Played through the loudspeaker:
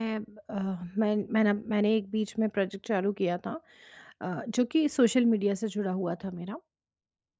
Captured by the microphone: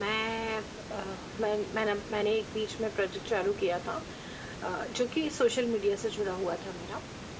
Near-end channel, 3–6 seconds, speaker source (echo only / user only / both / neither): echo only